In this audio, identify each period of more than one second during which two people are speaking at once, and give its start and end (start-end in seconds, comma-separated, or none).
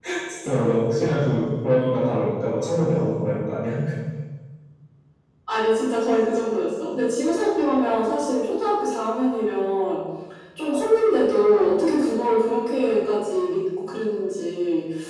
none